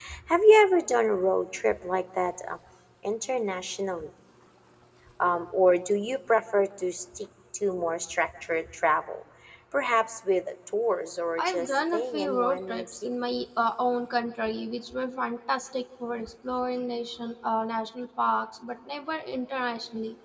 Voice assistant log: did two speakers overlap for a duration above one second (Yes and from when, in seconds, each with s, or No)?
Yes, from 11.4 s